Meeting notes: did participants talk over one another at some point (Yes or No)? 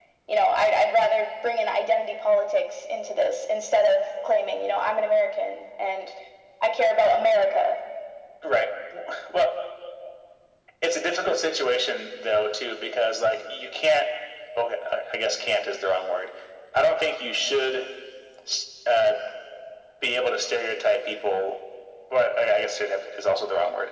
No